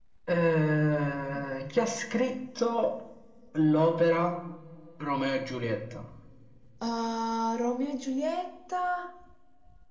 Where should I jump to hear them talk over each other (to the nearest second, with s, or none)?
none